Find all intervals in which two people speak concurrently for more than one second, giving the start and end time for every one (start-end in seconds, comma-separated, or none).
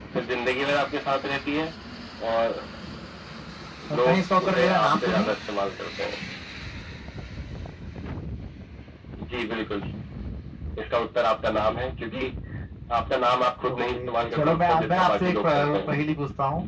4.0-5.3, 14.4-16.0